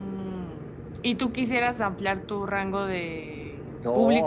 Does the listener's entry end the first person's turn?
Yes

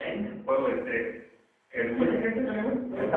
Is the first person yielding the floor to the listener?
Yes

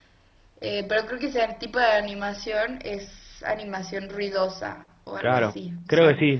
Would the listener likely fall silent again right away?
No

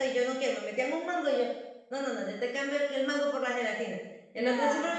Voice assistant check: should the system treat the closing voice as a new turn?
No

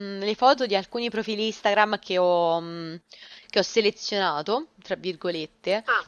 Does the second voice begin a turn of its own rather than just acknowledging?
No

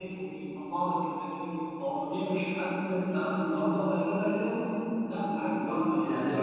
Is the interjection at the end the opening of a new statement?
Yes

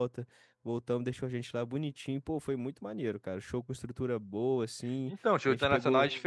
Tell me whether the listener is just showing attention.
No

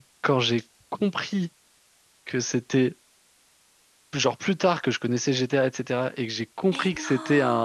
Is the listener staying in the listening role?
Yes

